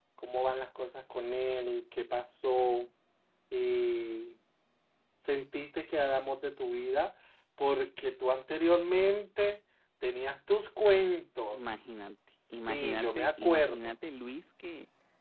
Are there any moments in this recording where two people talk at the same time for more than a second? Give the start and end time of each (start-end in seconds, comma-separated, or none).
12.5-13.9